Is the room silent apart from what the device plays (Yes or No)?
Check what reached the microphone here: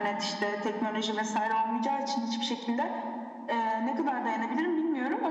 Yes